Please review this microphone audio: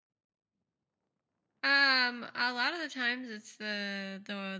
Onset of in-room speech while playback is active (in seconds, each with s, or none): 1.6 s